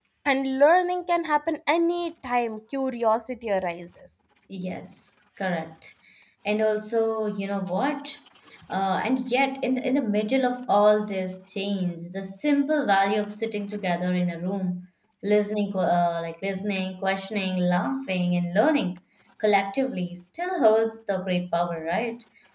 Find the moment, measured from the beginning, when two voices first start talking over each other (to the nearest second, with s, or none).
none